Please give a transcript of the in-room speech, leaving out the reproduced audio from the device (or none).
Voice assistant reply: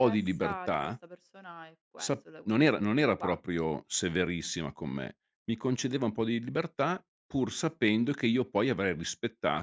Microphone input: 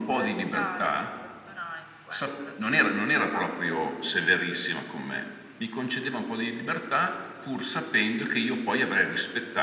none